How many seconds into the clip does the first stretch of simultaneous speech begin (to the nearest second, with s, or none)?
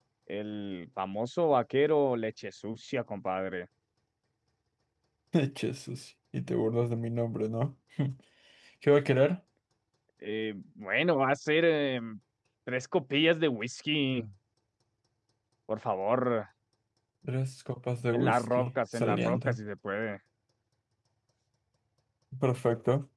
18 s